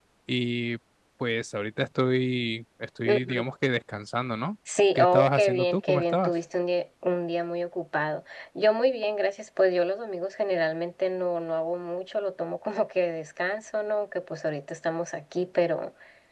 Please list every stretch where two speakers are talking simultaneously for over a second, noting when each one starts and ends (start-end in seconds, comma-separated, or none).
5.0-6.3